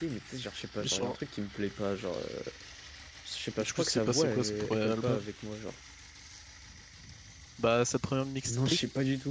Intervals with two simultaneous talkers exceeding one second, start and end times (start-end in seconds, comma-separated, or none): 3.6-5.2